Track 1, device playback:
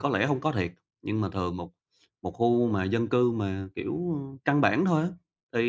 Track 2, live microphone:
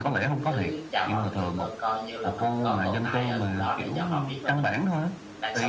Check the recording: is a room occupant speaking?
Yes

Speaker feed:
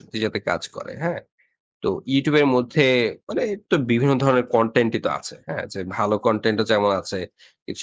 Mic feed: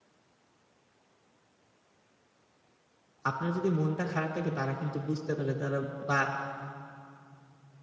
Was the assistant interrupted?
Yes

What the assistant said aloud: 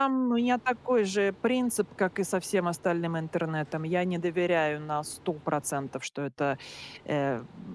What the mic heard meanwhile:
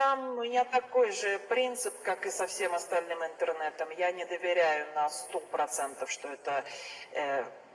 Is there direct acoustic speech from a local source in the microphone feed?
No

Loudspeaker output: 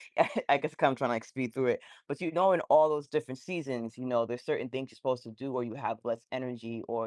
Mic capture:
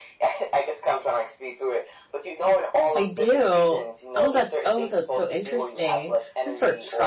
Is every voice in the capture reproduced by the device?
No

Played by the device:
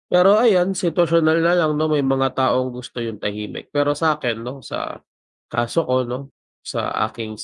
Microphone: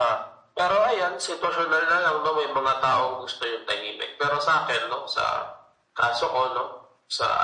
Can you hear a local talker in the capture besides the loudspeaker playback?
No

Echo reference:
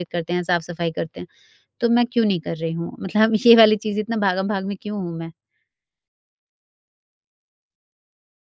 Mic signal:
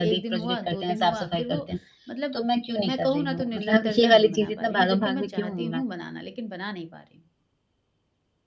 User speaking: Yes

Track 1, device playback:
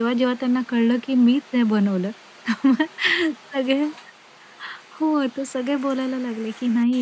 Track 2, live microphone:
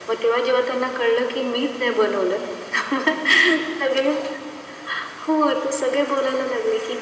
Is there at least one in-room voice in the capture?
No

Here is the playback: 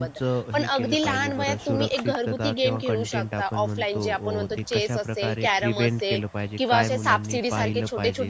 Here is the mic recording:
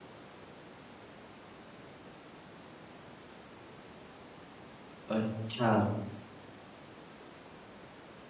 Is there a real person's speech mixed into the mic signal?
Yes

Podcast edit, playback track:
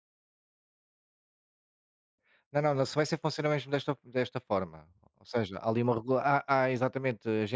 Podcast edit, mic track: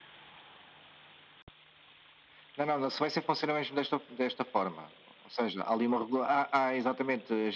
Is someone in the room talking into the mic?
No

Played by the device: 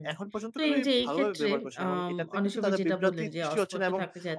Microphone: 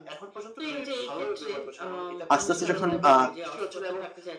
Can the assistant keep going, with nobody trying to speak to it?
No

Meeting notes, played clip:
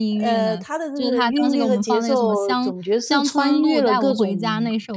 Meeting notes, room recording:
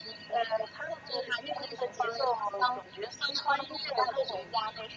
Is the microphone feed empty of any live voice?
Yes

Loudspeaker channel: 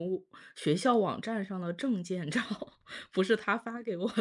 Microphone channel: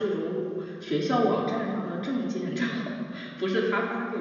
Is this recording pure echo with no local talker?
Yes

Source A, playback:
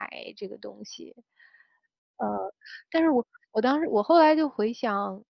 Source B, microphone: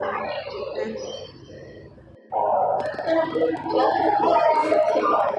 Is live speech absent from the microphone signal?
No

